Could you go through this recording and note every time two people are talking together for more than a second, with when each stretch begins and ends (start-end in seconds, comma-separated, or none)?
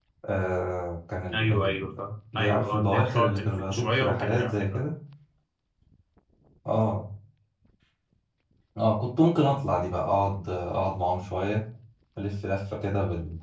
2.4-4.8